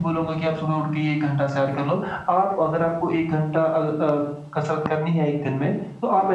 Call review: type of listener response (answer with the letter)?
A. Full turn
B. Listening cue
B